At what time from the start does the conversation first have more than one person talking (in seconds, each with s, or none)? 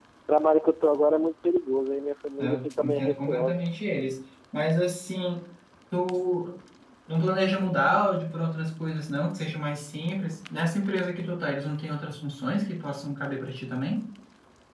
2.4 s